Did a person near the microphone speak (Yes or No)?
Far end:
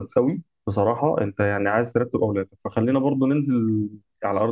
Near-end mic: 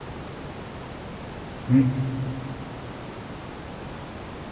Yes